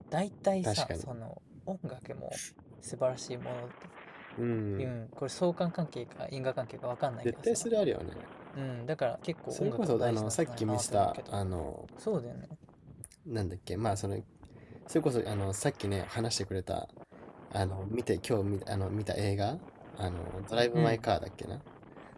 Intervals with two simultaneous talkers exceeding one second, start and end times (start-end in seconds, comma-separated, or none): 9.5-11.4